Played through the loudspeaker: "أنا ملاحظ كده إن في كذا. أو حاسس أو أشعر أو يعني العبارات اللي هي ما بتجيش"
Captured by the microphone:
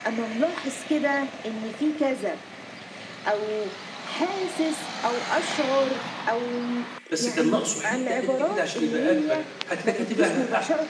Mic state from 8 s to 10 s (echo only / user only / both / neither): both